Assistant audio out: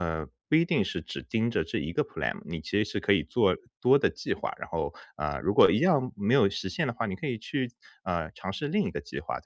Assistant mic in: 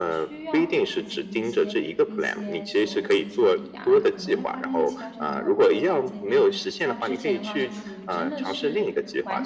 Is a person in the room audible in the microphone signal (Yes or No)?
Yes